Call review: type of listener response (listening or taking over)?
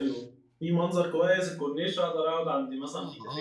taking over